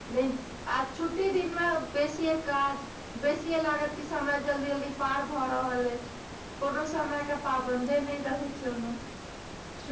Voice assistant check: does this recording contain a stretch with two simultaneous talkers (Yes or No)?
No